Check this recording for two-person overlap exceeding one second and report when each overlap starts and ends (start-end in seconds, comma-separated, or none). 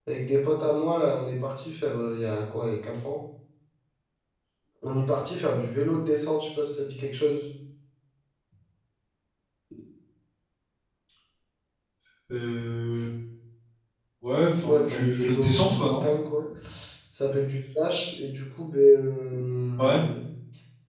14.5-16.0